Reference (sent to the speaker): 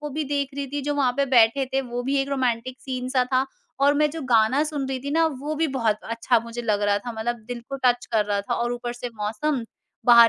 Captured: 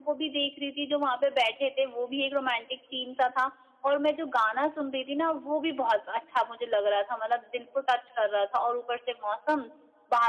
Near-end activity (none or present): none